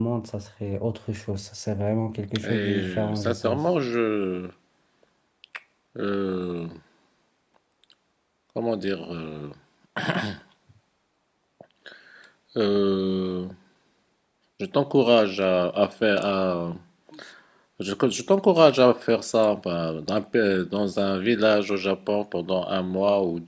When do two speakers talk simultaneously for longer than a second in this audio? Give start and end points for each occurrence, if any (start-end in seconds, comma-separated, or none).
2.4-3.7